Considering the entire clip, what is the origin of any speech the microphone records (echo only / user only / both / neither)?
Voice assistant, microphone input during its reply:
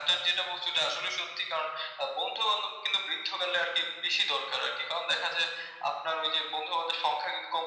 echo only